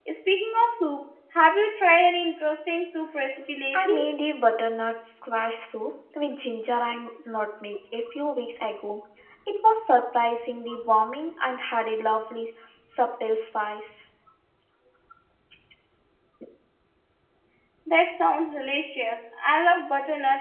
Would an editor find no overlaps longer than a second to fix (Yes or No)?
Yes